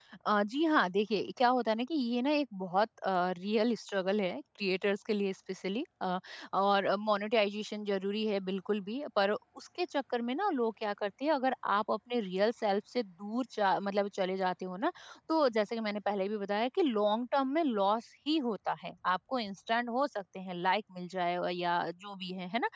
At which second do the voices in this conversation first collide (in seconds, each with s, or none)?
none